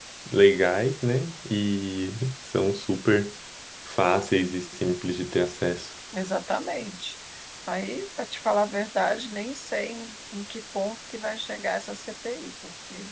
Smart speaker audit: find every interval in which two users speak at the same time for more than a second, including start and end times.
none

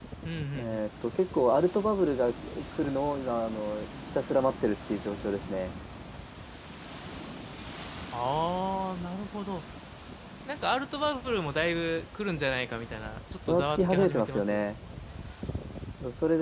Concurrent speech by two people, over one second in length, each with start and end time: 13.5-14.7

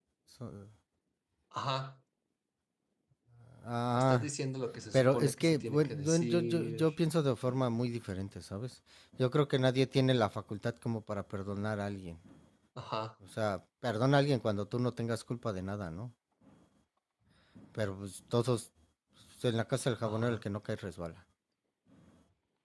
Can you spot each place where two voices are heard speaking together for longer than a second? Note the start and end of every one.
4.9-6.8

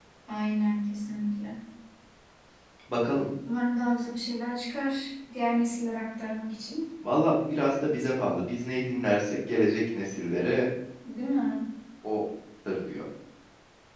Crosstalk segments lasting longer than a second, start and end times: none

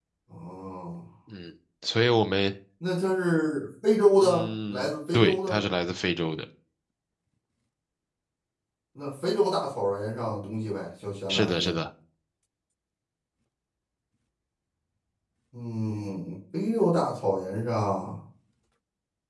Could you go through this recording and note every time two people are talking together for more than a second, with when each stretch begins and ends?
4.2-5.6

